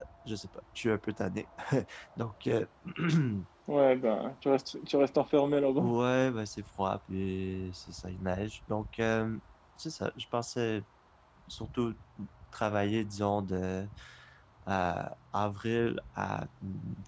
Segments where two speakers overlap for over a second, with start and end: none

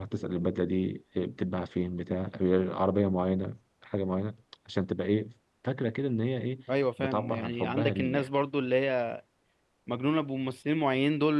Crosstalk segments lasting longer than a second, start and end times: 7.0-8.3

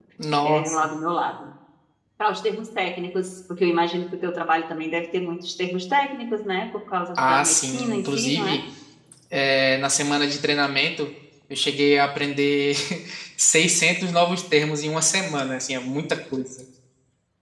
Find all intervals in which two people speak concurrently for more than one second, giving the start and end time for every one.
7.2-8.6

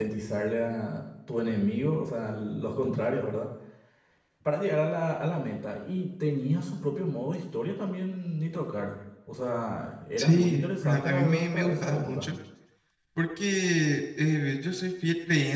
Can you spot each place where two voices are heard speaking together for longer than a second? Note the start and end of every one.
10.2-12.3

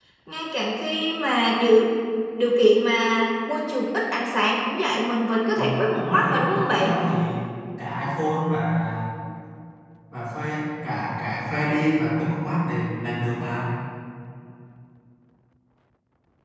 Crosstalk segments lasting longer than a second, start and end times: 5.6-6.9

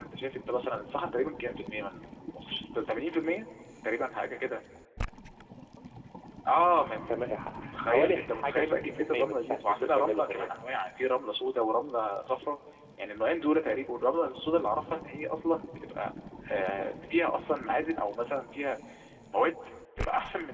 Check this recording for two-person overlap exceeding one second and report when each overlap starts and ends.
7.6-10.5

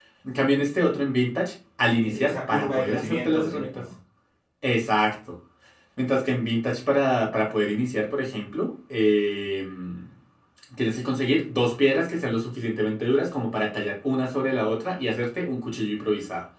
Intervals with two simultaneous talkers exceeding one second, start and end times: 2.0-3.7

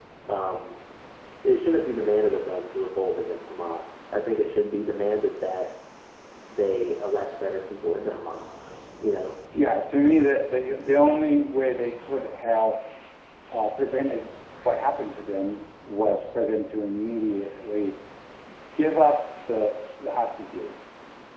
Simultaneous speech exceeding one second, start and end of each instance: none

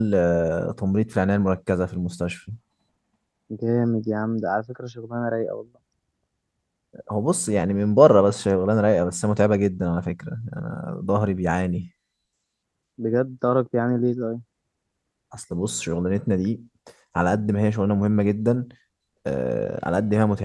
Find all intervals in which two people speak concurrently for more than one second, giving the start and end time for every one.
none

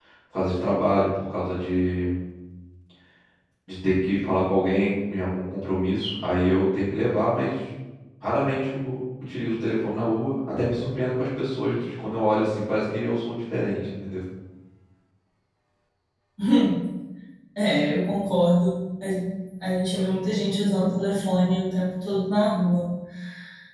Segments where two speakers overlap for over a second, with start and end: none

